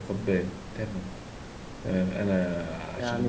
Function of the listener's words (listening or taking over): taking over